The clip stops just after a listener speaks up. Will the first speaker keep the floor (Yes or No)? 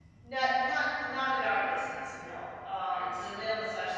Yes